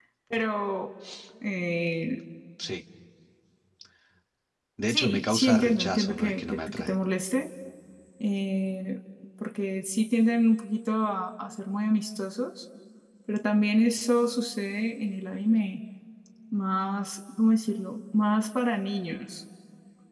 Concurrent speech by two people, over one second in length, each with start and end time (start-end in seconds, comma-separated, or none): 4.9-7.0